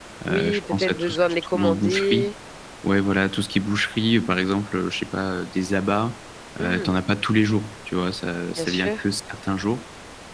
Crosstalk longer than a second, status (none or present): present